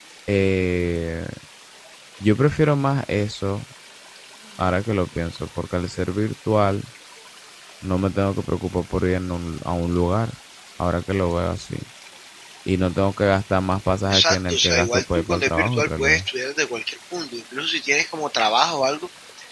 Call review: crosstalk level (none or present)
present